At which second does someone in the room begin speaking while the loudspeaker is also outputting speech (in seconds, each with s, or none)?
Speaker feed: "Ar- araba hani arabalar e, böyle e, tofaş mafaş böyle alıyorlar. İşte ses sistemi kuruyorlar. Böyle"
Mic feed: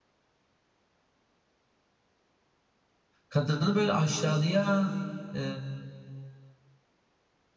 3.3 s